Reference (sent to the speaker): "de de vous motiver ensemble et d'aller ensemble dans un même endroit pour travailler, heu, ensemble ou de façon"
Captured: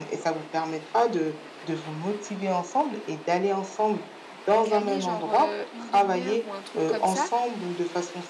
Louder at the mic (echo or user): echo